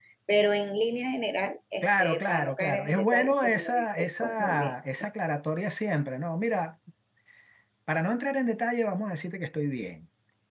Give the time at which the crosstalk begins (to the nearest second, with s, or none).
2 s